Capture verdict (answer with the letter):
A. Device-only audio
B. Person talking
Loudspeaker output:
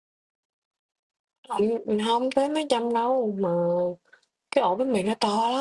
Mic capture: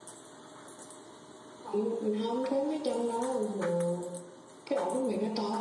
A